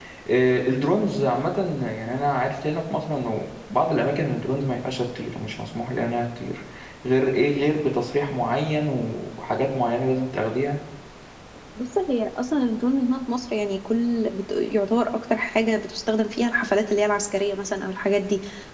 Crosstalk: none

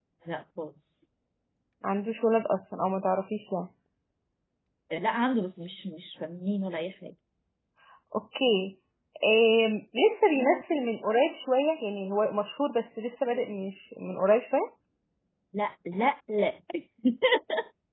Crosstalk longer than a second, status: none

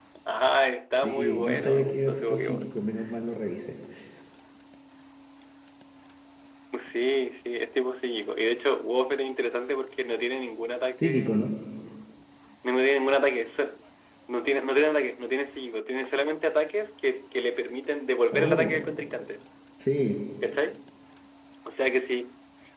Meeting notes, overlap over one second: present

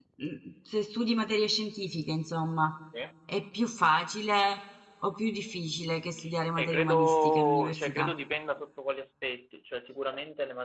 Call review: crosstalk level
present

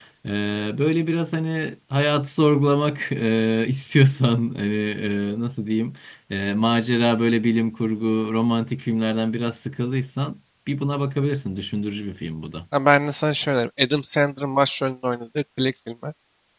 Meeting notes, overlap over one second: none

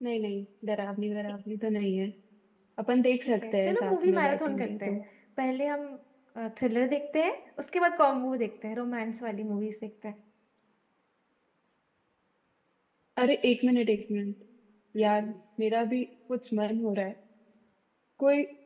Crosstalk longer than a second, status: present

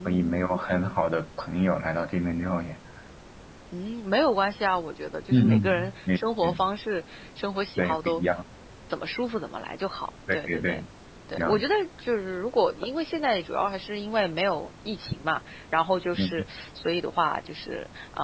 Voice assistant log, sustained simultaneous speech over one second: present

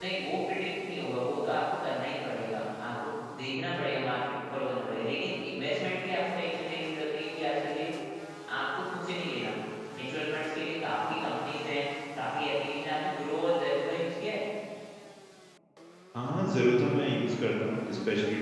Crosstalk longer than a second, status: none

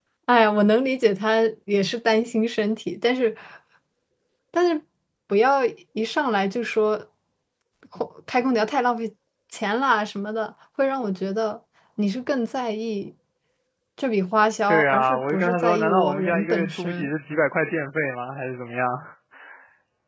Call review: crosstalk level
present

